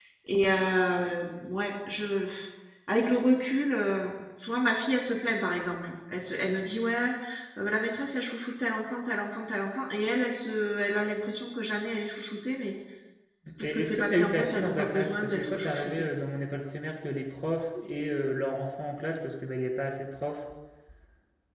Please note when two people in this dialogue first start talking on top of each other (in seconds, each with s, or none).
13.6 s